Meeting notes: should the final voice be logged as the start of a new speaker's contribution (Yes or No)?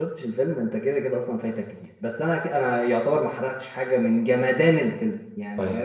Yes